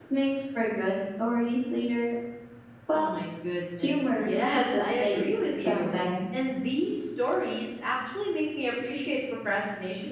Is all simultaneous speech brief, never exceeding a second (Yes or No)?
No